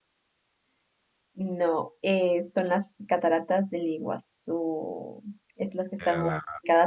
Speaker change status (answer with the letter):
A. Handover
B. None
B